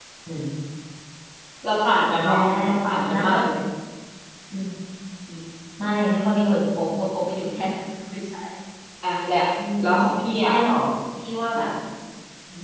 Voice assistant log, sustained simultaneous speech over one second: none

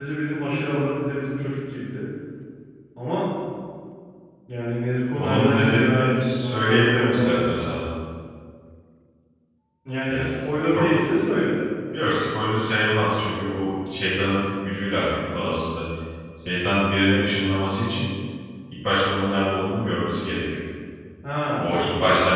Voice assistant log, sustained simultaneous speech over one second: present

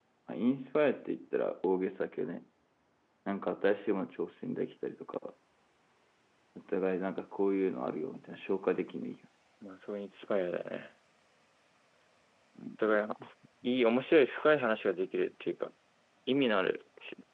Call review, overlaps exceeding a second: none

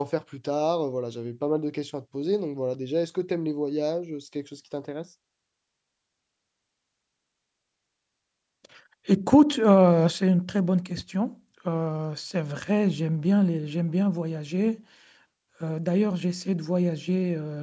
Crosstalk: none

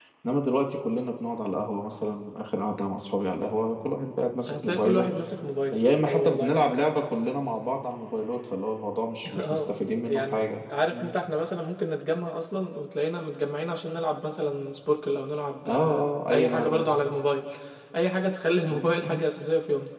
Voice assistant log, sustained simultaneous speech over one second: present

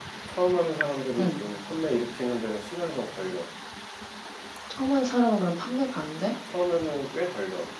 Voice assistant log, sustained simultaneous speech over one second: none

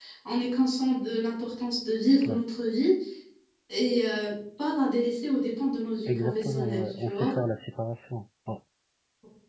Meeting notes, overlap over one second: present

